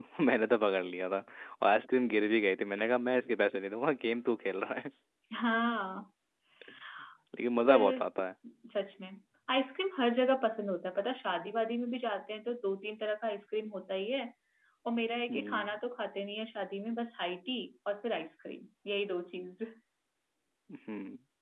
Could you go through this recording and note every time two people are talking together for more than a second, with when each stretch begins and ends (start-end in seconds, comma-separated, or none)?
none